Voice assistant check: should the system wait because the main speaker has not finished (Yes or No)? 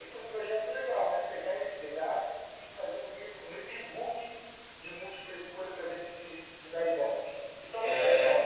No